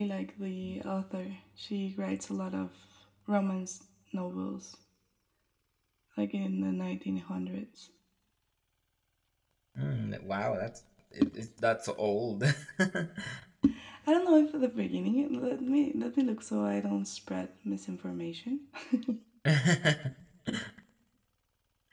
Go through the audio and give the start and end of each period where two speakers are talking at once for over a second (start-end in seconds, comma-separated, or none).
none